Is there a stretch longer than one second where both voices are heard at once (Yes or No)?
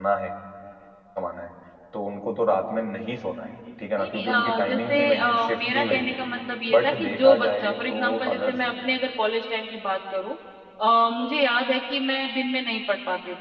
Yes